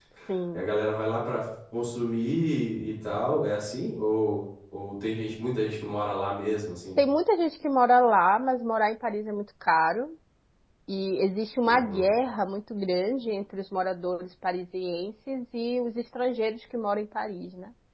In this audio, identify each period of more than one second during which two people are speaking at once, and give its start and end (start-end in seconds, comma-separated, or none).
none